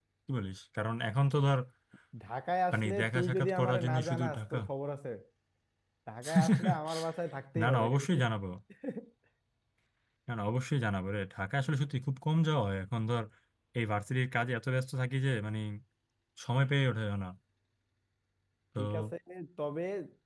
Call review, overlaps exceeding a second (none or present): present